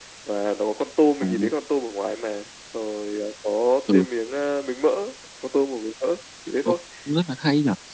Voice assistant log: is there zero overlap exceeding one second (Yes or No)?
Yes